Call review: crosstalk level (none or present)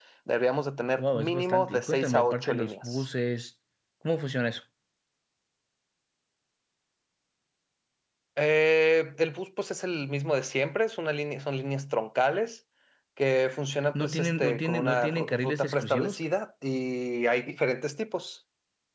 present